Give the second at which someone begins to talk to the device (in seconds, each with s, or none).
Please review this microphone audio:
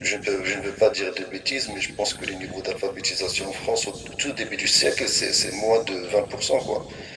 none